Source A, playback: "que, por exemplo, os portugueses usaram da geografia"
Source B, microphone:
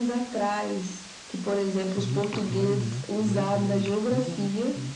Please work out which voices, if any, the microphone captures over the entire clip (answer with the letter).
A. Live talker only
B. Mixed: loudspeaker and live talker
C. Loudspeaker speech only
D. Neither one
B